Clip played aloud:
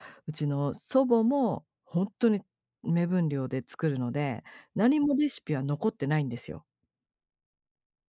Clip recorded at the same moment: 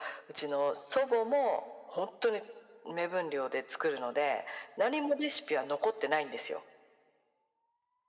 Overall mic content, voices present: echo only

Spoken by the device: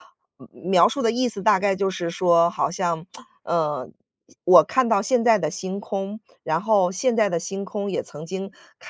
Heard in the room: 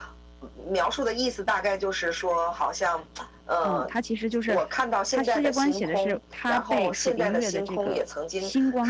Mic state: both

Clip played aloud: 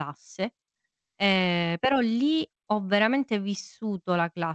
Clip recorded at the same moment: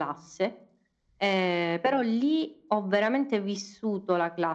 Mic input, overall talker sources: echo only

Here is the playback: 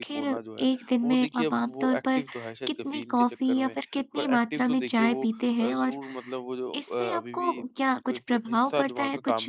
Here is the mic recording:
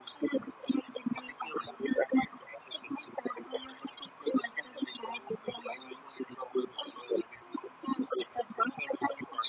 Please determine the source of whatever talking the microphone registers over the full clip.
echo only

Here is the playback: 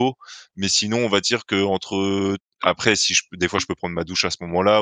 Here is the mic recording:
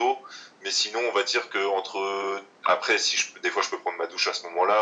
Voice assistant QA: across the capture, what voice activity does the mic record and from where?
echo only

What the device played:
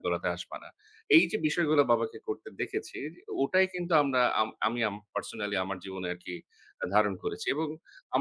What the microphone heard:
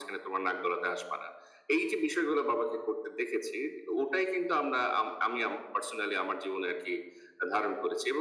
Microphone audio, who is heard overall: echo only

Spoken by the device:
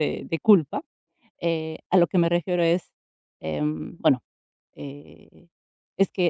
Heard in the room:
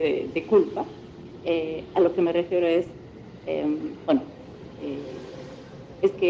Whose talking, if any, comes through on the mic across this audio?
echo only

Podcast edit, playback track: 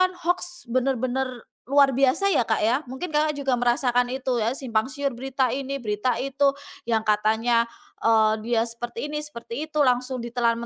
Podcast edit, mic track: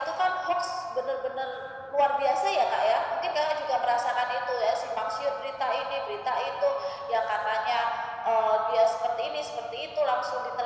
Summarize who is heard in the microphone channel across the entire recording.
echo only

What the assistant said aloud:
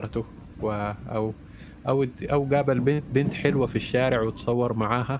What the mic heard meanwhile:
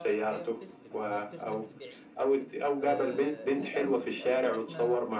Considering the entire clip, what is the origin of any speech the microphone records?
both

